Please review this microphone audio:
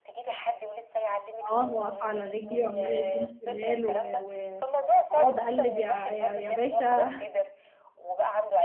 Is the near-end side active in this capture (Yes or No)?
Yes